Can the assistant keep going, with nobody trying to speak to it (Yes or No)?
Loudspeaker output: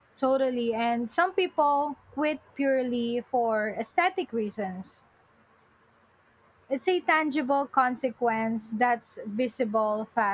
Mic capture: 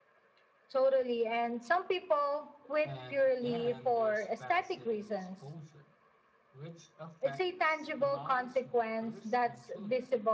No